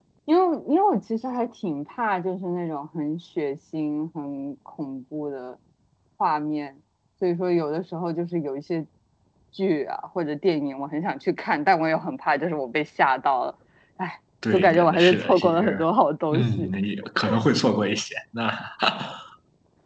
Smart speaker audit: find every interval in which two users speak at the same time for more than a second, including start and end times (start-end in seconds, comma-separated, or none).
14.5-15.8